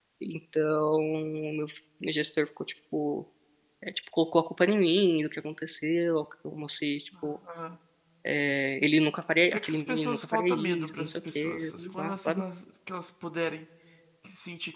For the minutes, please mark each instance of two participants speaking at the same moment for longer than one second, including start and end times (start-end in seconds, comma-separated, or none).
9.5-12.4